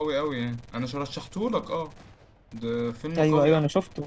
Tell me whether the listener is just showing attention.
No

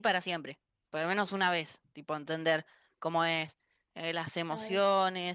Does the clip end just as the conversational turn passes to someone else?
No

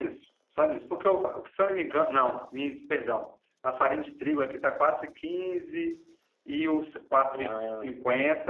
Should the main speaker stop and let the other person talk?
No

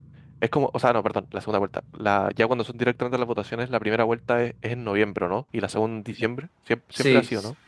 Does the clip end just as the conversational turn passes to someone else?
Yes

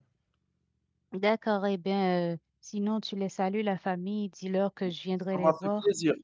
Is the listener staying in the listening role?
No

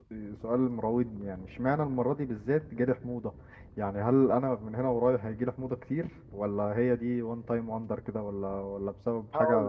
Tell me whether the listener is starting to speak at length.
Yes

